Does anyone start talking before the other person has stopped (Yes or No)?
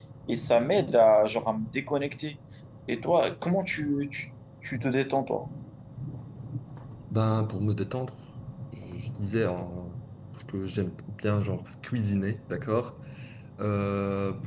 No